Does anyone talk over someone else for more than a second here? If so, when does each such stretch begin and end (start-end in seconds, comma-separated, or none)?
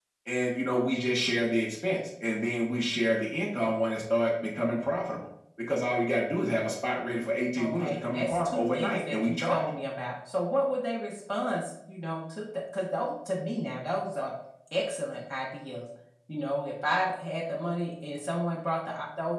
7.6-9.7